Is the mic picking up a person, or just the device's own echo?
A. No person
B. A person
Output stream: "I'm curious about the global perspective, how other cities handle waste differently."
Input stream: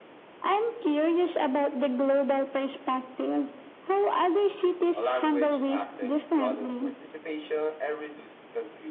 B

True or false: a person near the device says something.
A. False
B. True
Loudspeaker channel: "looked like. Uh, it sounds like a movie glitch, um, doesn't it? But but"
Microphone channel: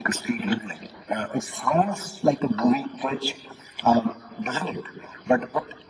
A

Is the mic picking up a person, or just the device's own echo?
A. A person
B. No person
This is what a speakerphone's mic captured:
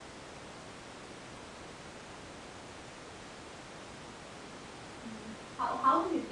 A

